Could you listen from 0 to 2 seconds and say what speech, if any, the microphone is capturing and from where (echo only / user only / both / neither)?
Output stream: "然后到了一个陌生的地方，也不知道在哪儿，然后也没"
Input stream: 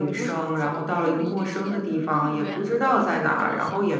both